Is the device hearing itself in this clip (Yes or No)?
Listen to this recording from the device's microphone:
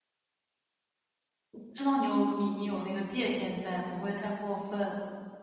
No